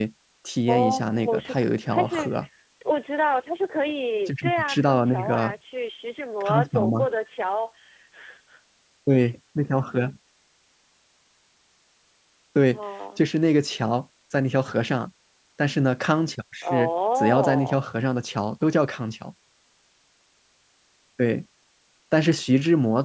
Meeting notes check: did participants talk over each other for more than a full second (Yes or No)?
Yes